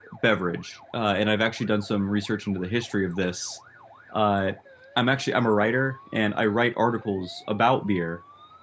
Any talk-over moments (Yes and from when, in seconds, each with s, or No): No